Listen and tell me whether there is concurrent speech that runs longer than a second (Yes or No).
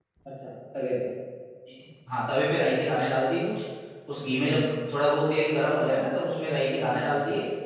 No